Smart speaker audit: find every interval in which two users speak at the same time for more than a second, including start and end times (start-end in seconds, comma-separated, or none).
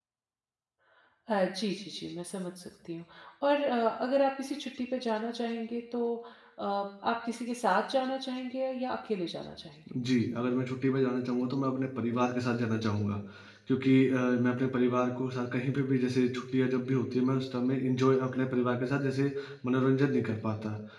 none